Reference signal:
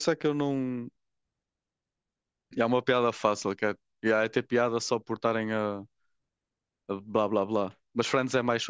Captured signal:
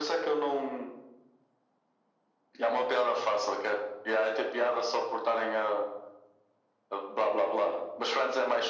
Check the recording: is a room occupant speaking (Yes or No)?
No